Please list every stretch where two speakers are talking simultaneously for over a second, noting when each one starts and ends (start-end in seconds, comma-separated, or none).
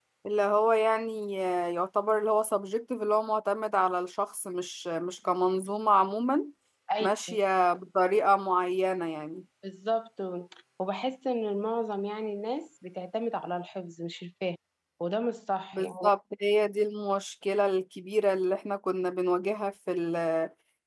none